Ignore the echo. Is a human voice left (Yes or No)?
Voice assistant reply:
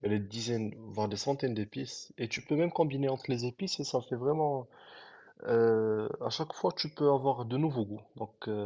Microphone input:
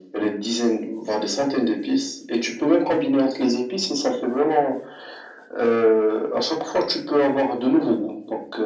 No